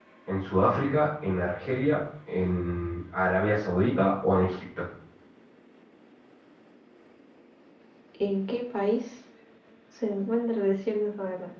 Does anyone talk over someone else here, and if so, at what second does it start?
none

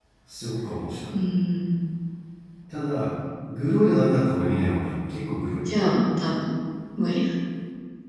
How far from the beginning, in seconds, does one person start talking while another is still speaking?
none

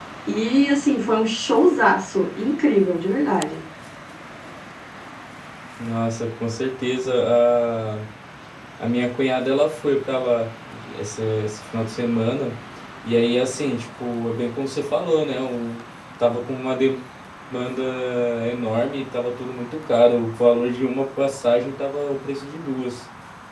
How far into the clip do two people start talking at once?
none

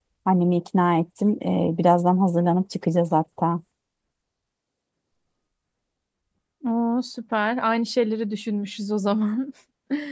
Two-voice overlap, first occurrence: none

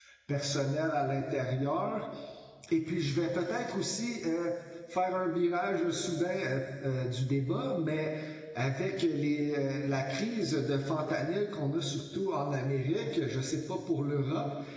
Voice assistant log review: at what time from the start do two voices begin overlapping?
none

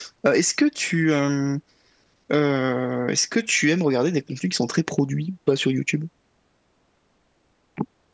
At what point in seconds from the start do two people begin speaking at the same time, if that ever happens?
none

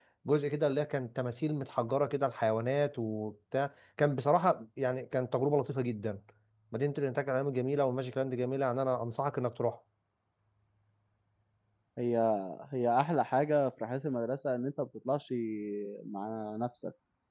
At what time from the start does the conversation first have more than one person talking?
none

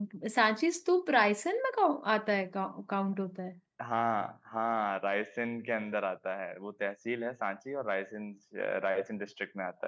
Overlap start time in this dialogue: none

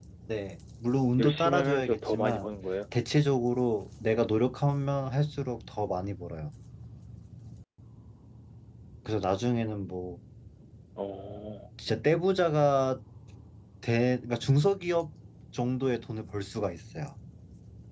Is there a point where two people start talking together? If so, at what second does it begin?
1.2 s

